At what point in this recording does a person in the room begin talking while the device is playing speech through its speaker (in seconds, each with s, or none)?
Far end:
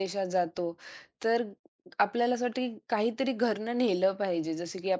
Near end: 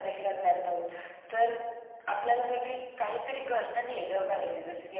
none